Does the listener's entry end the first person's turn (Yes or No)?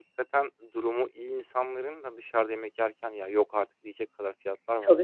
Yes